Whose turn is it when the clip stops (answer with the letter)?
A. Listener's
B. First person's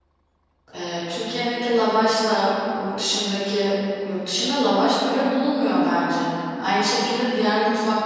B